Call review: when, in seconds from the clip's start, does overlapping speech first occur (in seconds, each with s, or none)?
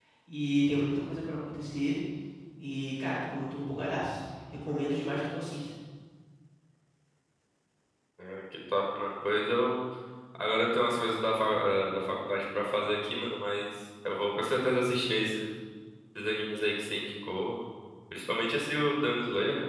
none